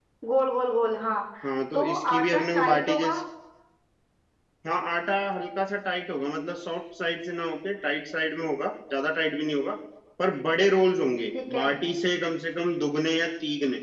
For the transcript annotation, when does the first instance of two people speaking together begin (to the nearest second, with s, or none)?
2 s